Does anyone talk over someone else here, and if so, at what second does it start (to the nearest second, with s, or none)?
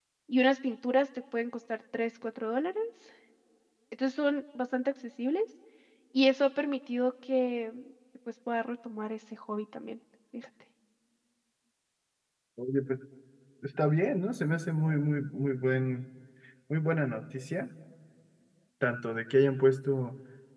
none